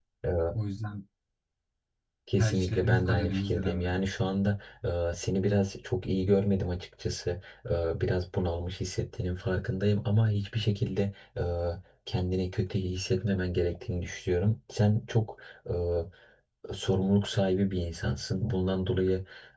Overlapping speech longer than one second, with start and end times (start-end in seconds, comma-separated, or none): 2.4-4.0